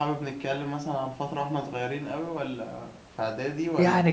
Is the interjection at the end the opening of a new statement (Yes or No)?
Yes